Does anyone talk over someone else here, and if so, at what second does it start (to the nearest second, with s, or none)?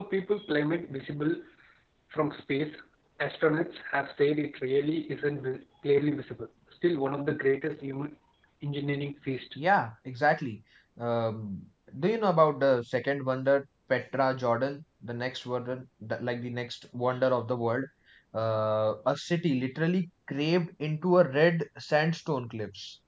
none